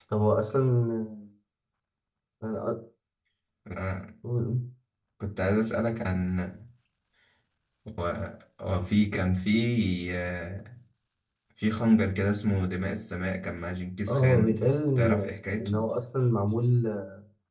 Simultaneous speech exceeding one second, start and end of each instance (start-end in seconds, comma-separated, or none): none